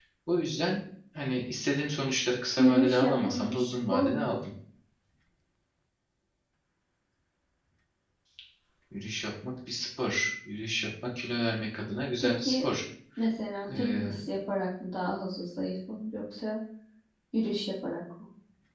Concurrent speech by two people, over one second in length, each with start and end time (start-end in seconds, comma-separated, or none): 2.6-4.2